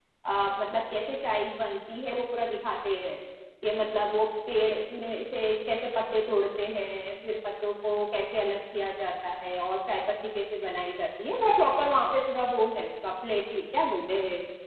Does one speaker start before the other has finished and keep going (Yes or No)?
No